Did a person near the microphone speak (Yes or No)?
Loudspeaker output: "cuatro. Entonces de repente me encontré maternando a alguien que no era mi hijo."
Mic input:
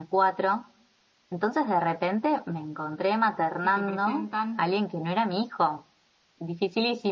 Yes